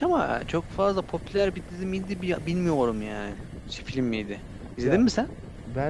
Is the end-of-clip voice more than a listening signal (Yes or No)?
Yes